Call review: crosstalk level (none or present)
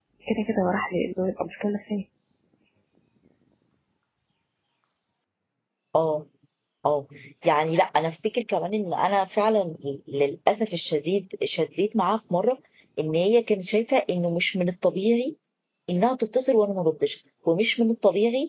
none